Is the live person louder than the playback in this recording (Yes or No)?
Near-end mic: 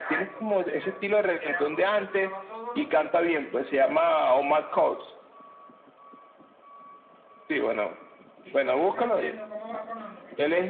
No